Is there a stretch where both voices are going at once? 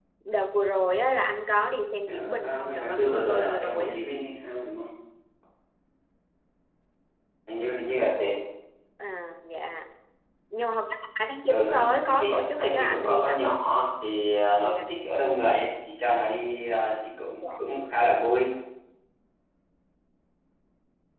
Yes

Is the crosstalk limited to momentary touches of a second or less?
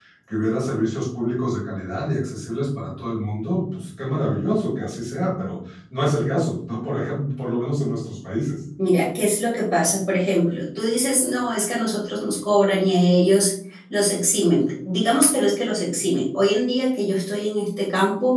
Yes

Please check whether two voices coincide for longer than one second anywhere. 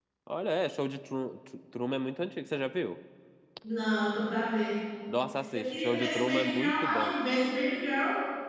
Yes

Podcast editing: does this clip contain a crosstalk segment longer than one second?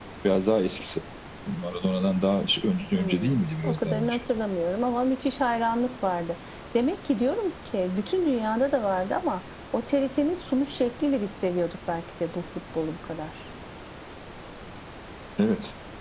Yes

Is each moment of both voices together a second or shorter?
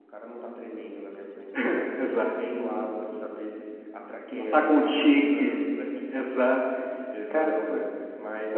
No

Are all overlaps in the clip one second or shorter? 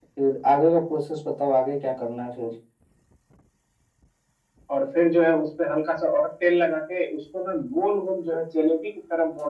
Yes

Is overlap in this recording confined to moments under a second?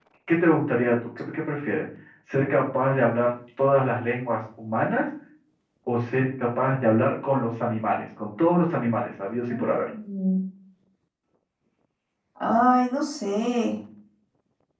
Yes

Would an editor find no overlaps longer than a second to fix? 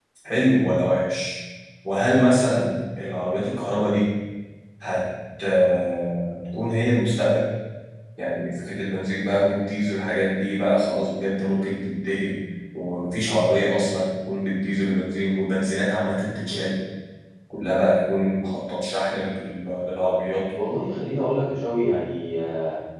Yes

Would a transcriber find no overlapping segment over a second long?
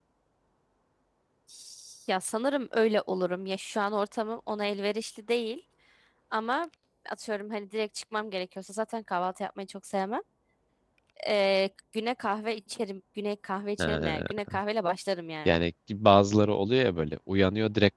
Yes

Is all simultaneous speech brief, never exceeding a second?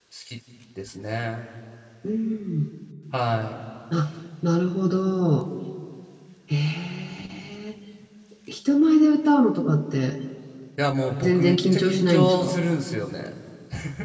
No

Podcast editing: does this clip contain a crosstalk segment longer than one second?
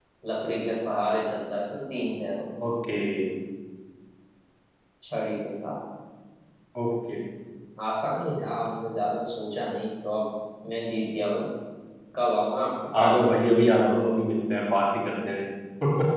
No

